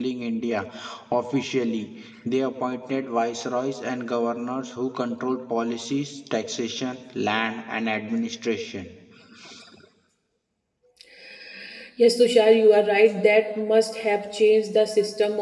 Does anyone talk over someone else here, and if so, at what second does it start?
none

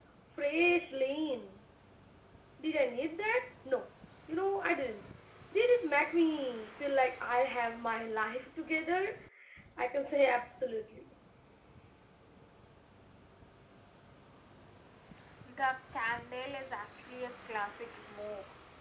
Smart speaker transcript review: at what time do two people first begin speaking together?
none

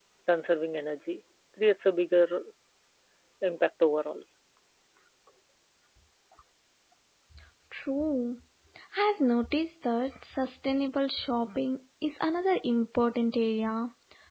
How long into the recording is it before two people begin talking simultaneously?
none

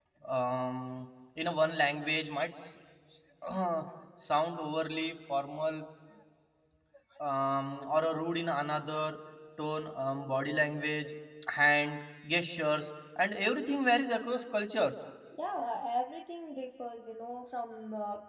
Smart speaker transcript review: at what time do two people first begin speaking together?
none

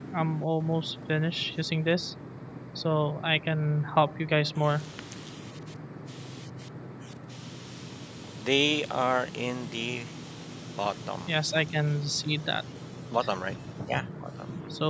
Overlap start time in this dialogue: none

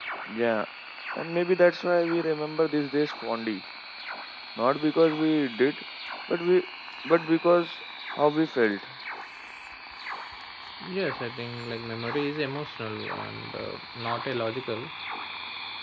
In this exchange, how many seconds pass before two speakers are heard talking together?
none

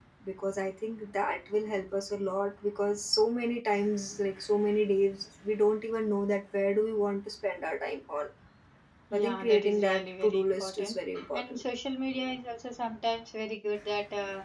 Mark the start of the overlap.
9.1 s

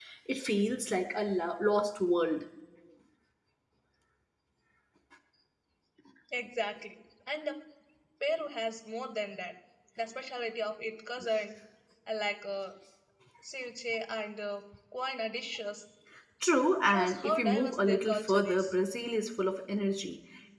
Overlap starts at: 16.8 s

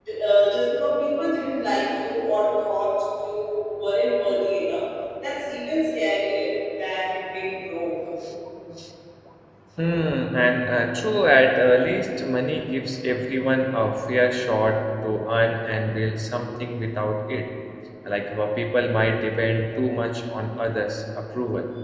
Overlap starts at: none

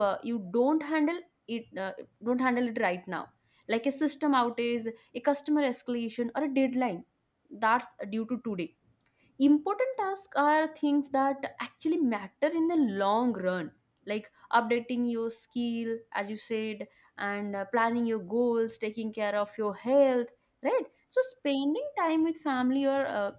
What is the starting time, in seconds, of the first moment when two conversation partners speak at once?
none

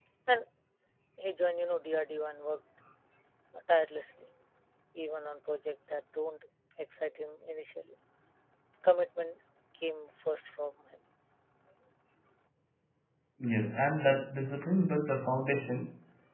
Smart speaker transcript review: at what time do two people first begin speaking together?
none

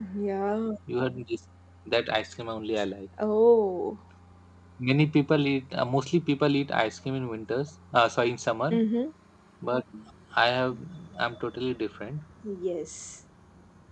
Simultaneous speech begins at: none

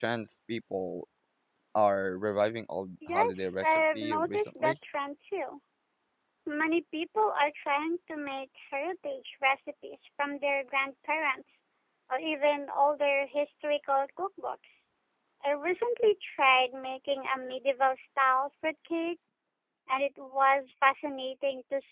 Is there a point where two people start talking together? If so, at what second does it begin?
3.0 s

